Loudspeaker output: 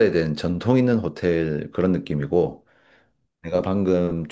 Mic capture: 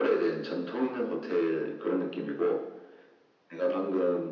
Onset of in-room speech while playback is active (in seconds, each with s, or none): none